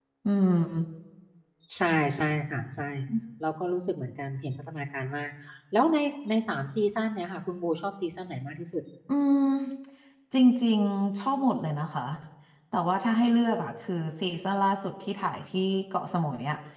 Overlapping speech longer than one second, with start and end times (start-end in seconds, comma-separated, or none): none